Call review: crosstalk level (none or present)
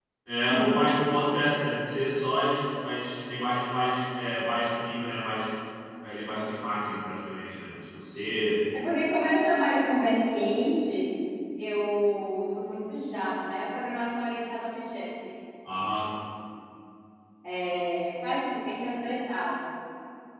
none